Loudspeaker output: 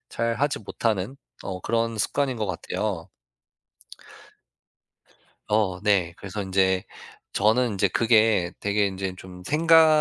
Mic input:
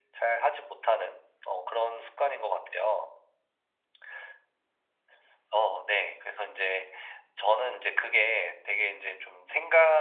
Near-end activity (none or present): none